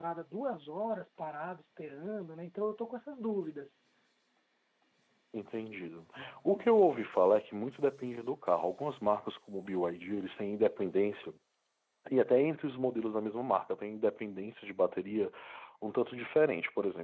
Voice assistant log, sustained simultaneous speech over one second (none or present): none